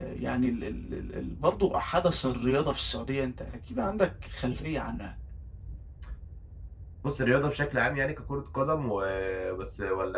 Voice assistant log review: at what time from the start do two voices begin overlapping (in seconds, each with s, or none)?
none